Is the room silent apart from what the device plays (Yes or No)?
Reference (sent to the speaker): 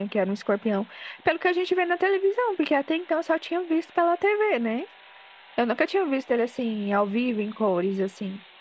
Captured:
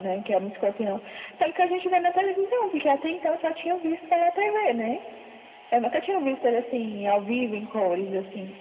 Yes